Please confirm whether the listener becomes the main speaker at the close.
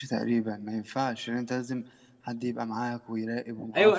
Yes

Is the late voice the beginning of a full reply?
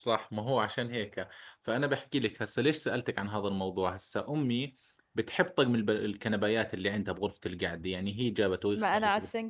Yes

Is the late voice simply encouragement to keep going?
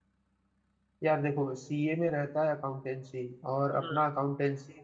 Yes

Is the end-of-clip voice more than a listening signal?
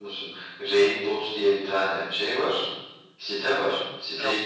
No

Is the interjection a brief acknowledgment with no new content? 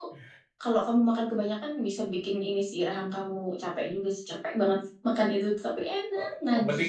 No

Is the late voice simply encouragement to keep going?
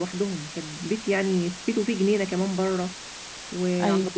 Yes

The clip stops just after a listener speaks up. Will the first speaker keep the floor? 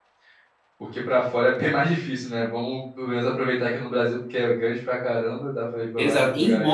No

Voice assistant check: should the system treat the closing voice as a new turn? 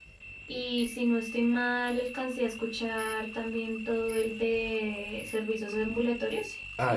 Yes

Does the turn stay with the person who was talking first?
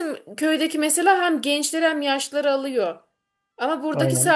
Yes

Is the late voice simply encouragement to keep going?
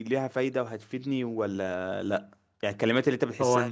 Yes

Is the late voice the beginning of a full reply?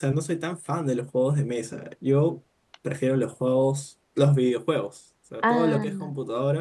No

